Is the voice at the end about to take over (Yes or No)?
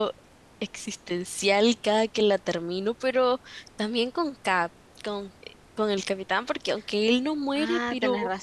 Yes